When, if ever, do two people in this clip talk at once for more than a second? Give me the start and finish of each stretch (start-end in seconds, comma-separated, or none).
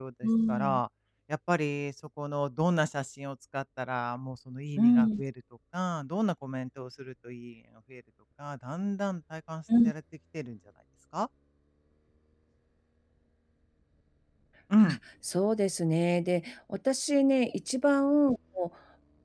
none